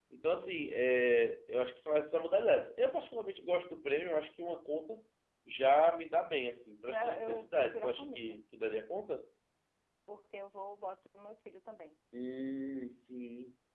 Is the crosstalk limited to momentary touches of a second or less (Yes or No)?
No